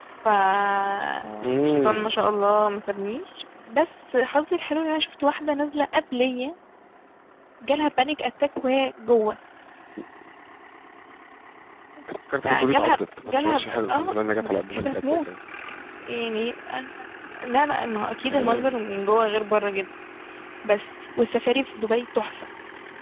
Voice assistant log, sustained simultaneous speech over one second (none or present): present